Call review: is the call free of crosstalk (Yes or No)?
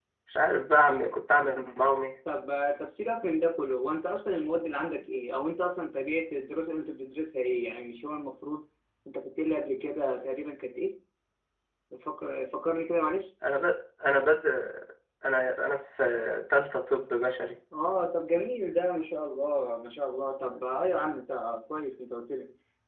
Yes